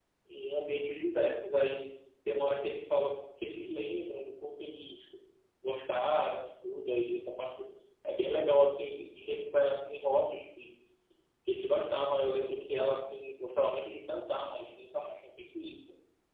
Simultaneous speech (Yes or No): No